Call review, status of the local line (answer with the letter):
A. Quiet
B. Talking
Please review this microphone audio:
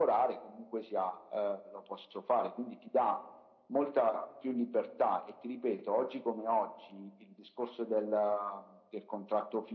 A